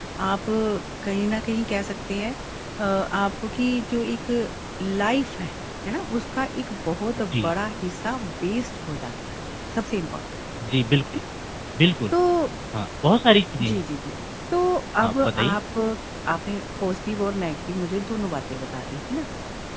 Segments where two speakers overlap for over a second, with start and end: none

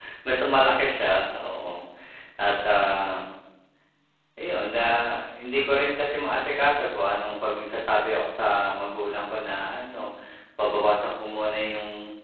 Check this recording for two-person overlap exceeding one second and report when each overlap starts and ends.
none

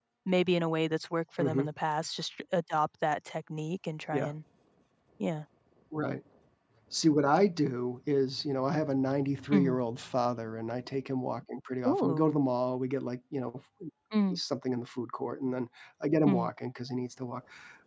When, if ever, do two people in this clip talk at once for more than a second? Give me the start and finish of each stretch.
none

